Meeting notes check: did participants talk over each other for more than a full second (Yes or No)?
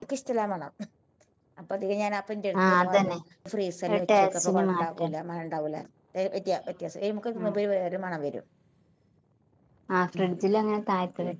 Yes